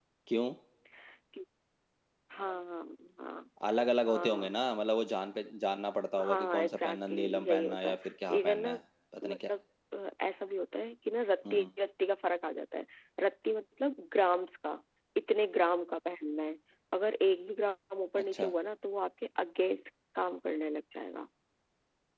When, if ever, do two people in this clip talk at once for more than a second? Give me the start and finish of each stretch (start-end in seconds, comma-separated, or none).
6.2-8.0